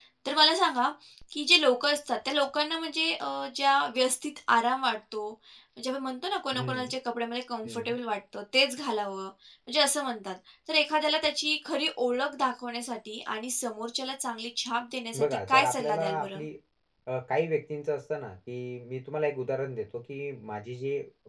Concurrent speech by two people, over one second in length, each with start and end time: 15.2-16.4

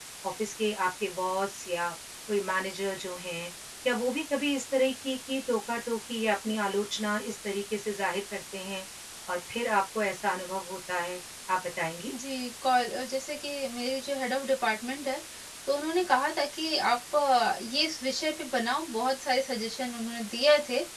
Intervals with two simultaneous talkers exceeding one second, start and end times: none

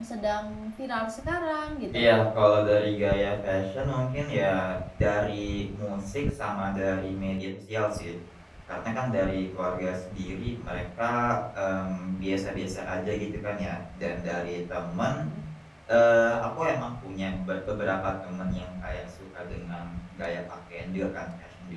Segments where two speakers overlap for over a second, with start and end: none

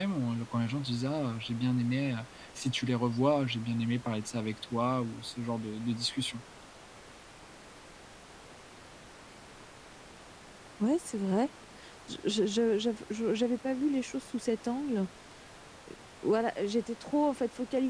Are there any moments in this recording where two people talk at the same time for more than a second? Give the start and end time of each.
none

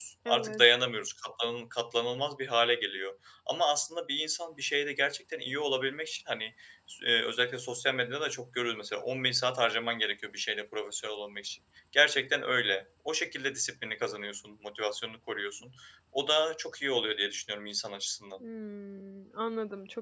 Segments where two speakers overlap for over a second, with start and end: none

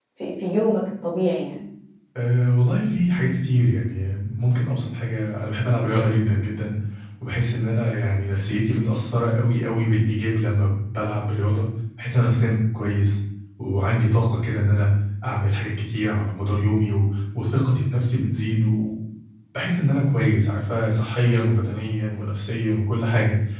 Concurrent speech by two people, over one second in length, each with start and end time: none

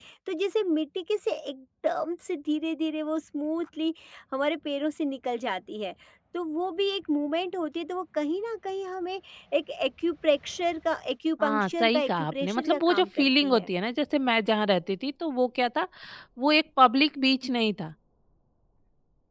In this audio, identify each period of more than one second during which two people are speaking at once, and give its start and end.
11.4-13.7

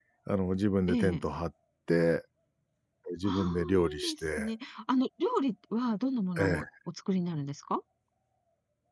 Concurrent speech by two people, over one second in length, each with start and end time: 3.2-4.5

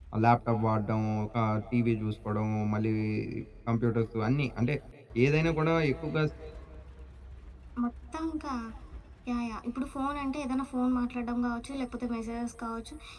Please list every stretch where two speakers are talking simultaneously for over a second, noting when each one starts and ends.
none

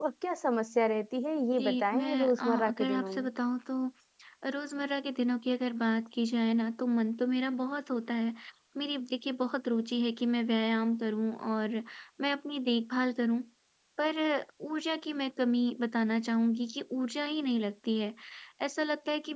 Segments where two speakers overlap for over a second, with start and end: 1.6-3.3

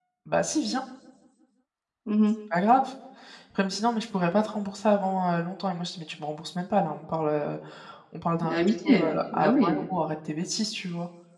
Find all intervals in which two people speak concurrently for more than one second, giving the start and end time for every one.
8.4-9.8

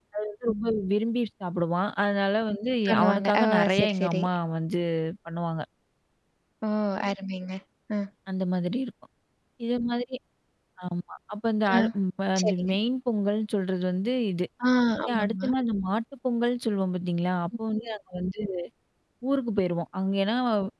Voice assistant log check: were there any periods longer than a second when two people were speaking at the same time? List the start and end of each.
2.9-4.2

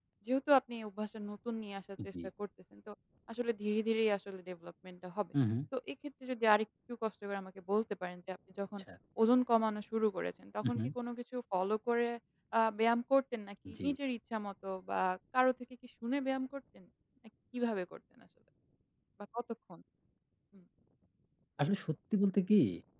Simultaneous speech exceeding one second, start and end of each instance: none

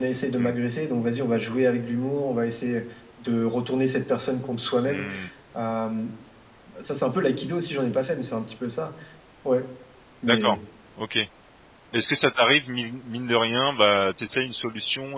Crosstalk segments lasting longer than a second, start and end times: none

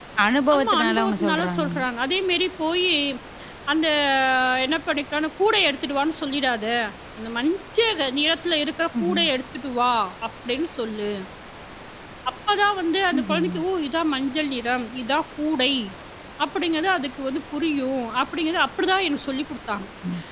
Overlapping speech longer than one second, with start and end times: 0.5-1.8

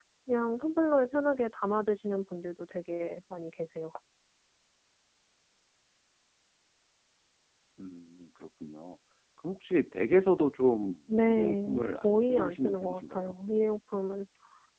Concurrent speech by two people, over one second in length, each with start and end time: 11.3-13.3

